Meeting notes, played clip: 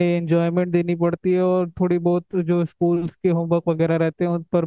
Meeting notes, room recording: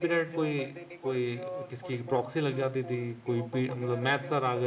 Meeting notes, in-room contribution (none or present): present